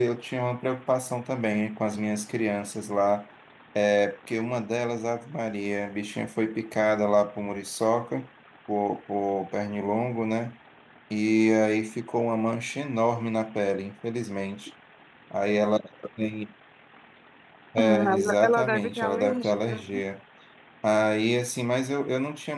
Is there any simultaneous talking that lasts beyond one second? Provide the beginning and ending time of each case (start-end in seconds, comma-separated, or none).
17.8-20.0